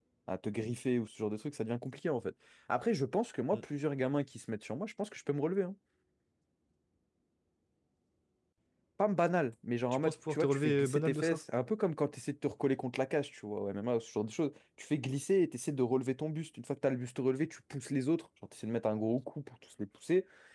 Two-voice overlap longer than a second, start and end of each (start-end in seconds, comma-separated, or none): 9.9-11.4